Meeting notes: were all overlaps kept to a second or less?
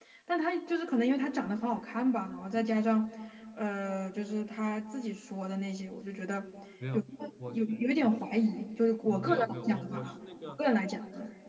No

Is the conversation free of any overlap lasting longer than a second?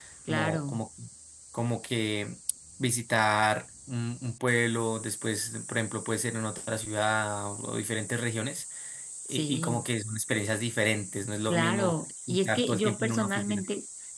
No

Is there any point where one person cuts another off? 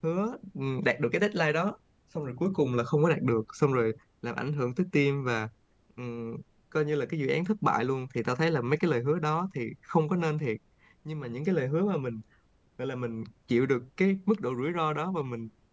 No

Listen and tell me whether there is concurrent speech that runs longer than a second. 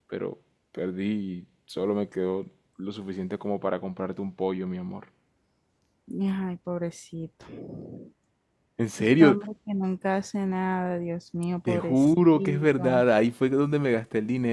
Yes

